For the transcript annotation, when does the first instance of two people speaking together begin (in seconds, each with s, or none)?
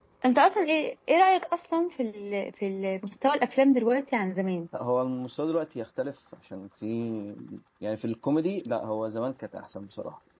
none